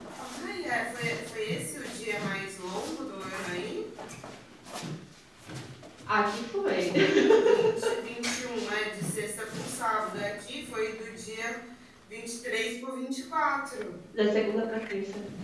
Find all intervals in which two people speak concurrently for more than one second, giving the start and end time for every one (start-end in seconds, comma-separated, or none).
none